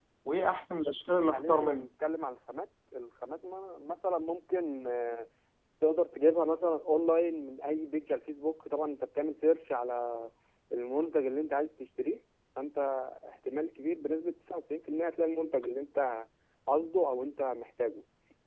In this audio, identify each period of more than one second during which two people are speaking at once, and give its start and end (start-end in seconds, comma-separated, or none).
none